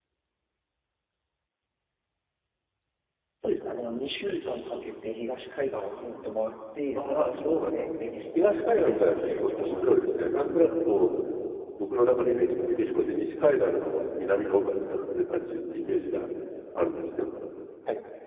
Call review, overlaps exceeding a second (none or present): present